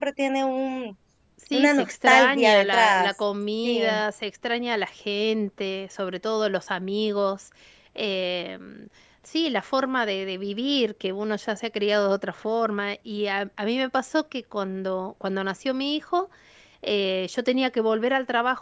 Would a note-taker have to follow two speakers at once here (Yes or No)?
Yes